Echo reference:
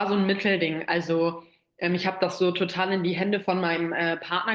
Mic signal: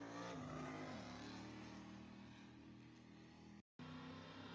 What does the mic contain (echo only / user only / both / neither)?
neither